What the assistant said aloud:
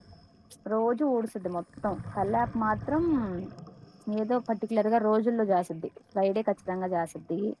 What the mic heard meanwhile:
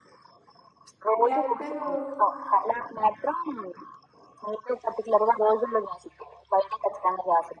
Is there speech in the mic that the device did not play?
Yes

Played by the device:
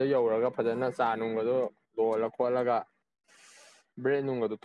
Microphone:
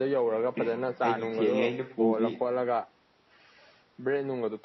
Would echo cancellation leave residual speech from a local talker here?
Yes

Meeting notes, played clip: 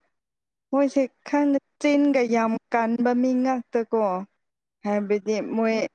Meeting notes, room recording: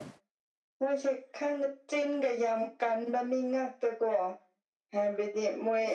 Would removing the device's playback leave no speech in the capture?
Yes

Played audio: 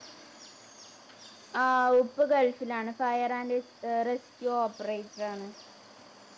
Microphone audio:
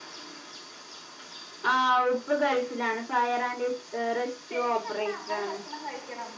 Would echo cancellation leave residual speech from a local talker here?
Yes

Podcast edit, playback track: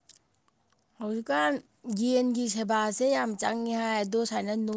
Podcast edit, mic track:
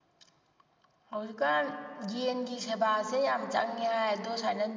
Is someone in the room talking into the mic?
No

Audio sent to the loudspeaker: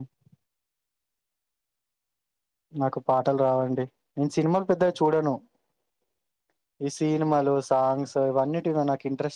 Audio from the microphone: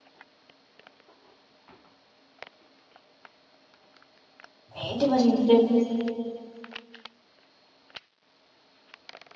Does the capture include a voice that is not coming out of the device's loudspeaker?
Yes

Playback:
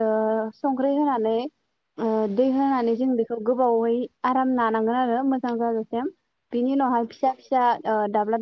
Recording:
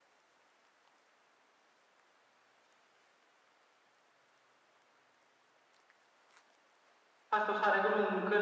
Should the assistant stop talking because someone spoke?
Yes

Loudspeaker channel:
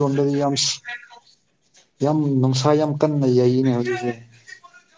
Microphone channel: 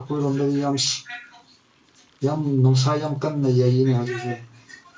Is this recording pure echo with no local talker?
Yes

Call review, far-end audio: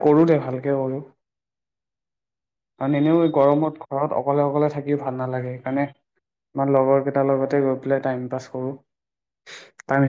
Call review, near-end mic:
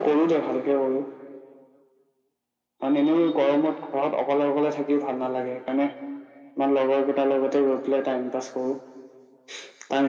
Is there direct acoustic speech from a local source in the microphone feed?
No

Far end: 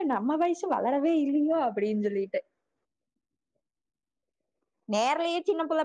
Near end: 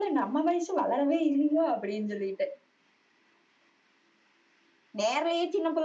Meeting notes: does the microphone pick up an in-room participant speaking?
No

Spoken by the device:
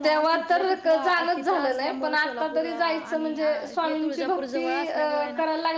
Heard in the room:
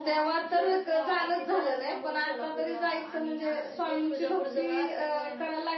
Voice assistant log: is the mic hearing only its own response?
Yes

